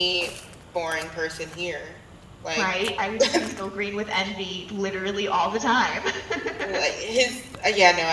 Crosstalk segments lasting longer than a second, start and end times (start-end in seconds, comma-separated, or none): none